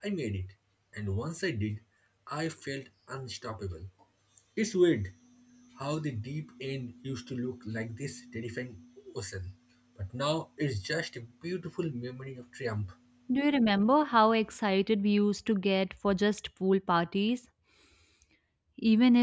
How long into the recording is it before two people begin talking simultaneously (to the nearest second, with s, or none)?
none